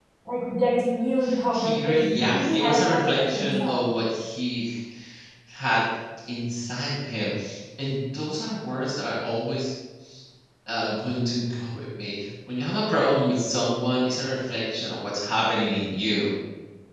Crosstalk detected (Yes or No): Yes